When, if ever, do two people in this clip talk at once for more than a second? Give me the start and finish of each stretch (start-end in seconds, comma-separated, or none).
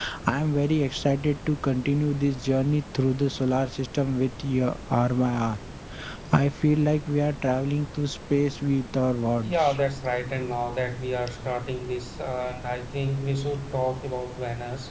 none